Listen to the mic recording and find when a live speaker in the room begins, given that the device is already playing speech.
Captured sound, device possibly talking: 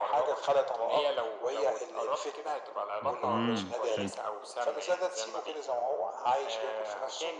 3 s

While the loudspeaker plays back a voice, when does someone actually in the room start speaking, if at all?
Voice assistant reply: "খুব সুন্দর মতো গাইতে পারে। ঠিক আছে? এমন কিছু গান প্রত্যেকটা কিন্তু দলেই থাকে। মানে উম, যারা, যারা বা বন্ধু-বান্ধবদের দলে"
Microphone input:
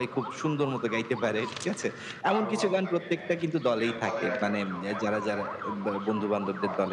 2 s

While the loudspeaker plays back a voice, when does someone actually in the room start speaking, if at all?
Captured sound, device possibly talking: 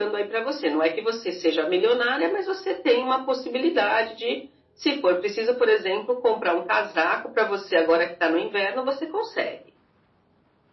none

